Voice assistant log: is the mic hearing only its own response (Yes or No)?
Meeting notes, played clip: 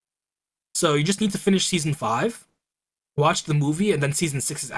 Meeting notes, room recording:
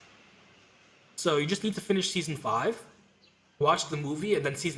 Yes